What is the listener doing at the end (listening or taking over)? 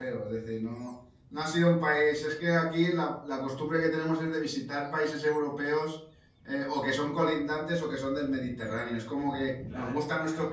listening